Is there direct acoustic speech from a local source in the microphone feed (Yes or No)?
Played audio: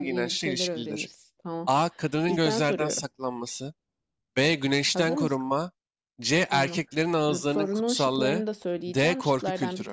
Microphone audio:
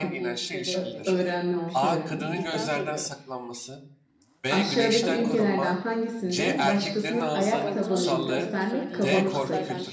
Yes